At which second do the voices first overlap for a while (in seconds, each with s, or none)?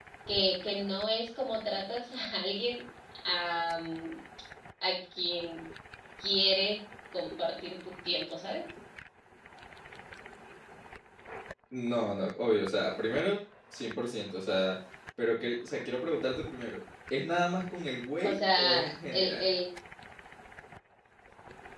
18.2 s